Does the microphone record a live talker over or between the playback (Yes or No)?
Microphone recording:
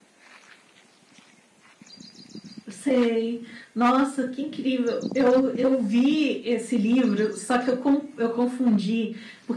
Yes